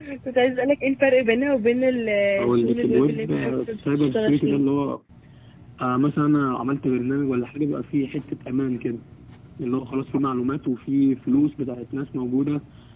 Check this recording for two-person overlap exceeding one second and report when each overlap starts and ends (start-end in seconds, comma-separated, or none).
2.4-4.6